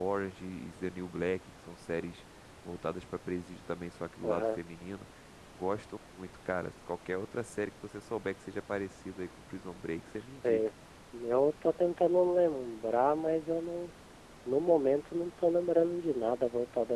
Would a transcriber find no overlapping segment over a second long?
Yes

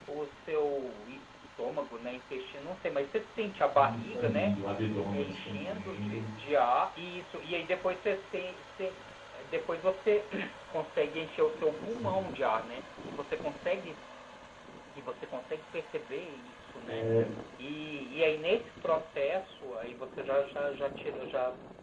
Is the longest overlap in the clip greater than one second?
Yes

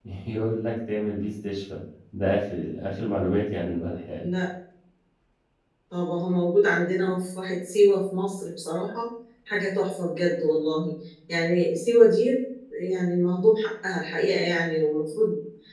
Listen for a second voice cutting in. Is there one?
No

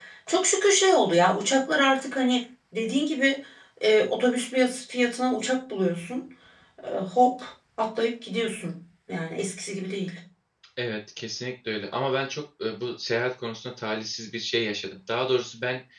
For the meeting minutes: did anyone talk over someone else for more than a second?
No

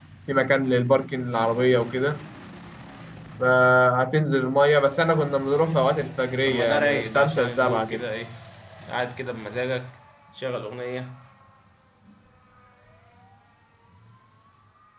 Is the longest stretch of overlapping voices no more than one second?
No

